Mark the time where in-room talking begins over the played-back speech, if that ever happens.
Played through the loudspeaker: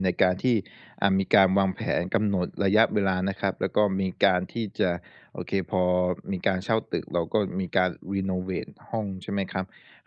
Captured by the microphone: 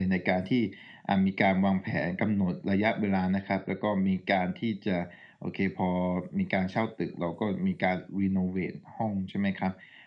none

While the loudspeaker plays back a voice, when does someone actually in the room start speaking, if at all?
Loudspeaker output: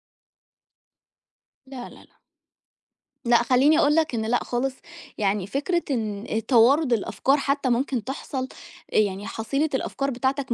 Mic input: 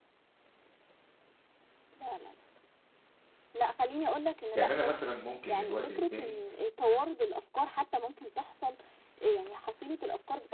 4.5 s

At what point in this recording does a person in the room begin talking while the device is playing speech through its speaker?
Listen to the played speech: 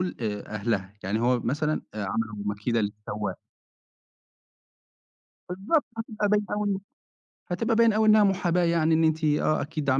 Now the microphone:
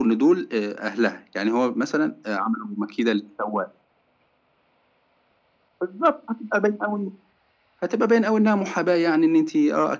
none

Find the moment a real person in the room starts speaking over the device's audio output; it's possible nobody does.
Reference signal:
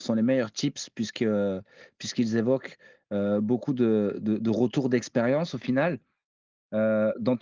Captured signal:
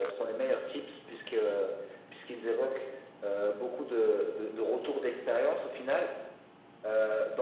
none

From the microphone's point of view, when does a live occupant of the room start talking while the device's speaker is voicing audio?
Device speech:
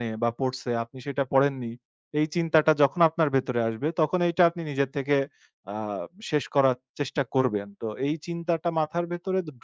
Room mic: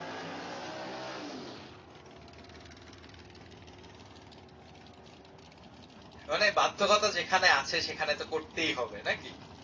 6.3 s

